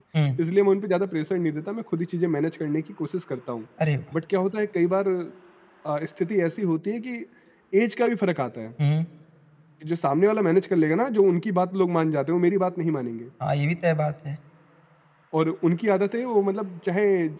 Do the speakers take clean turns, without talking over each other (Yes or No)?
Yes